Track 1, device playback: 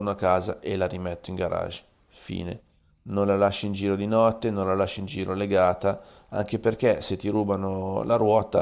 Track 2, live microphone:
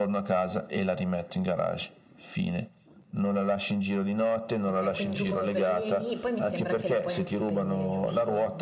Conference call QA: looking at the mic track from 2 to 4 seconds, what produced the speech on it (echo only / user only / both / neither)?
echo only